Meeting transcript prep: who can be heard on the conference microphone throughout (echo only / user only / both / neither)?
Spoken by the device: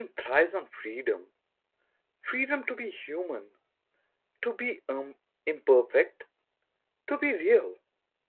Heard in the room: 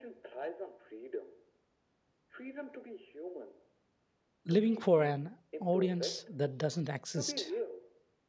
both